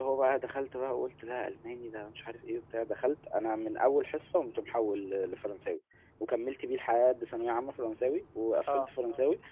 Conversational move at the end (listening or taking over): listening